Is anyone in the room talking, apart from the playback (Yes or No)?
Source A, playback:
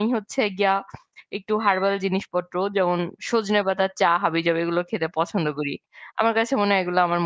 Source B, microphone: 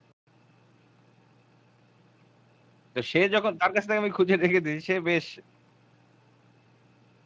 Yes